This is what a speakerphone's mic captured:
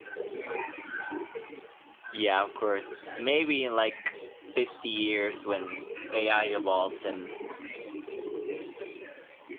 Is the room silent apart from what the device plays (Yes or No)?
No